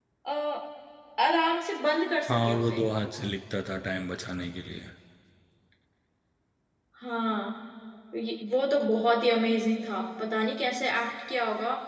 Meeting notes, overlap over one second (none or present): none